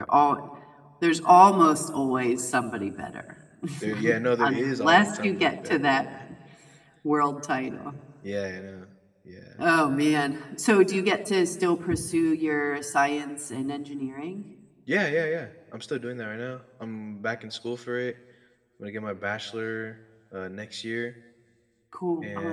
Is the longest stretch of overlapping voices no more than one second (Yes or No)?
No